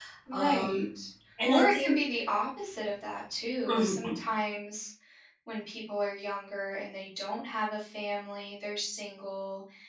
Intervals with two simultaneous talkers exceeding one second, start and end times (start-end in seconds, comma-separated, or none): none